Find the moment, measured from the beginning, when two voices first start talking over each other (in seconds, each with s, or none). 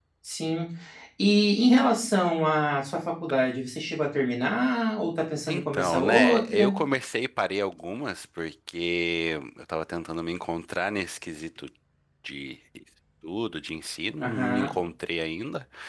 5.5 s